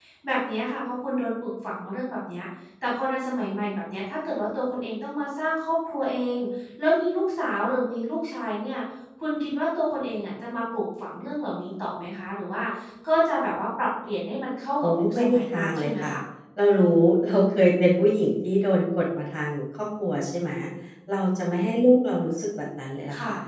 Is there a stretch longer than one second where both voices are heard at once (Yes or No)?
Yes